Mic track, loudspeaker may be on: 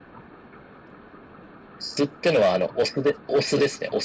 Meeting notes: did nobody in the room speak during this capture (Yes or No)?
Yes